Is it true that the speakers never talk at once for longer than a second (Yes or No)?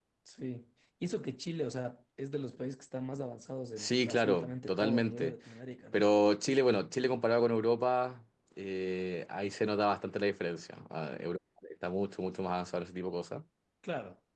No